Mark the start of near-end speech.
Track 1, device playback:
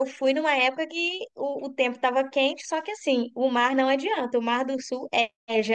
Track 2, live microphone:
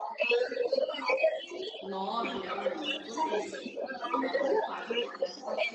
1.8 s

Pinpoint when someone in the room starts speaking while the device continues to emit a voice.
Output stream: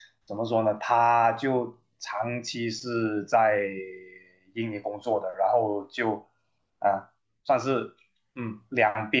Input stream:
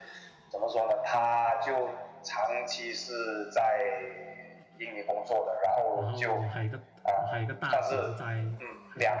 5.9 s

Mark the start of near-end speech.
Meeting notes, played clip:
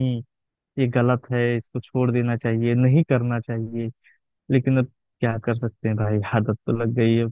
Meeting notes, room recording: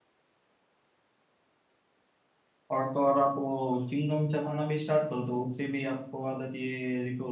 2.7 s

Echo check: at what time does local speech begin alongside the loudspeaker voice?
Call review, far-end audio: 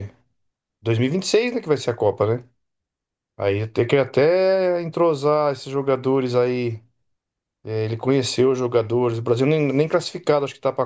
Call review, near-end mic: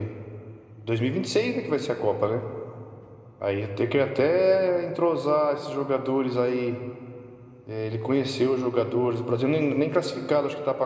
none

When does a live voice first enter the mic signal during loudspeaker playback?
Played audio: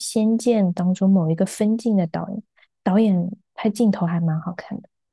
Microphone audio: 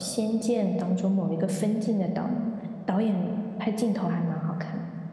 2.1 s

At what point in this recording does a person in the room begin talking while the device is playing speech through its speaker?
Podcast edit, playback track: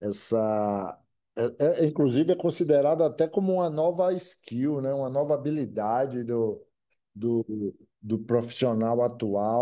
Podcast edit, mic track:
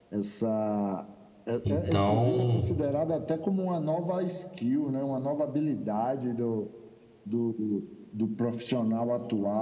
1.6 s

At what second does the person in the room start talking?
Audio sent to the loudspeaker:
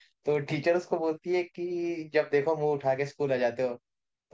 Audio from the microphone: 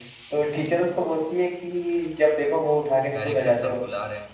3.1 s

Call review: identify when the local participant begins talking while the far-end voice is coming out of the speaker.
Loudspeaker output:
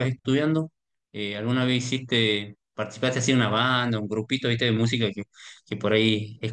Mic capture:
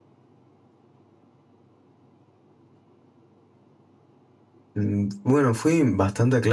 4.7 s

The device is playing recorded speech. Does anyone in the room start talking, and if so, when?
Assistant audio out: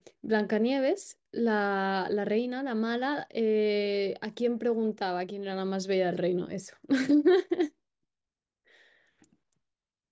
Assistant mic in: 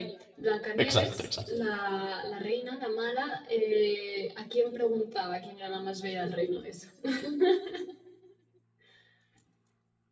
0.8 s

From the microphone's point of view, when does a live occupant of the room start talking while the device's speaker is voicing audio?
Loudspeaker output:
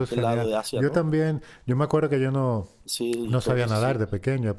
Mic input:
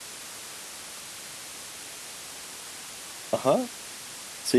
3.3 s

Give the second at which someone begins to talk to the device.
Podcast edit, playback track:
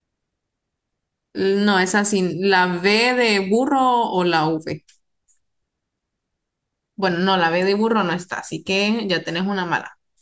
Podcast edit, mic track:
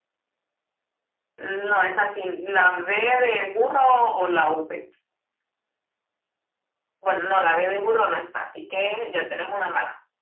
none

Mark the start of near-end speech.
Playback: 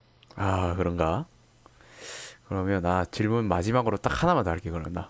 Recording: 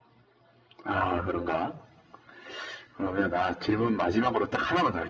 none

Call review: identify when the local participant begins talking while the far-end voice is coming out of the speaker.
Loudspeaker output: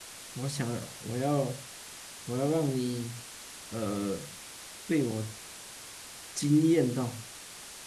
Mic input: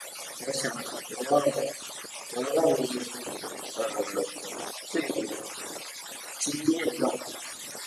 none

